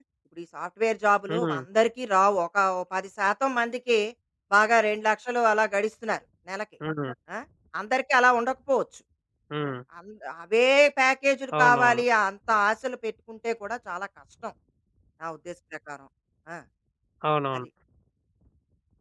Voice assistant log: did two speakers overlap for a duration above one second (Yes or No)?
No